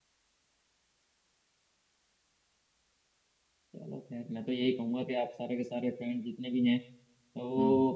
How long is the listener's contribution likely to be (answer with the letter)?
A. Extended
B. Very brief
B